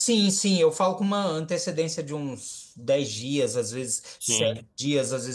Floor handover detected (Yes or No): No